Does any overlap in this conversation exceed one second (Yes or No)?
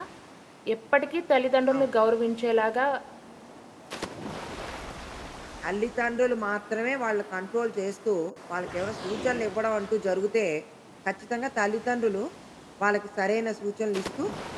No